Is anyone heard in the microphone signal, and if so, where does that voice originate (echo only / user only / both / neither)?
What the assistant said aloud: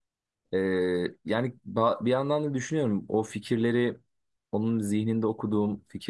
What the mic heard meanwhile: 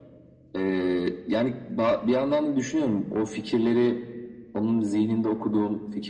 echo only